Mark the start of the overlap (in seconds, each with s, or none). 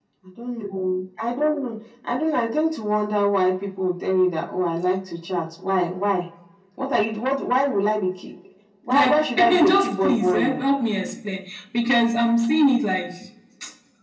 8.9 s